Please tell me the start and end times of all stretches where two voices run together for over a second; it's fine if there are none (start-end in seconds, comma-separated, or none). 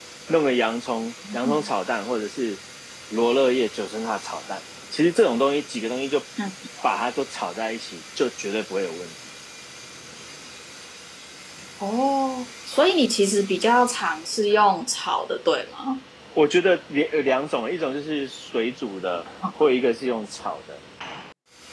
none